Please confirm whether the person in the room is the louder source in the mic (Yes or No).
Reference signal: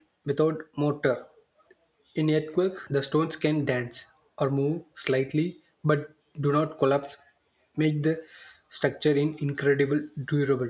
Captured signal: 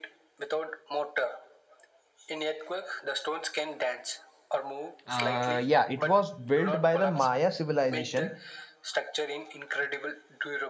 Yes